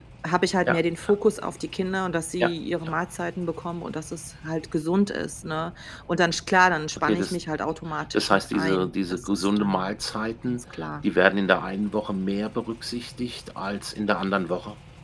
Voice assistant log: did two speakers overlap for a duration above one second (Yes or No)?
Yes